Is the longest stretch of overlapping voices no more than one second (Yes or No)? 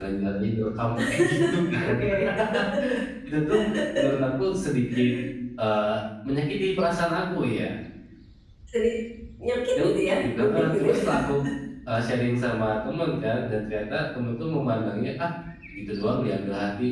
No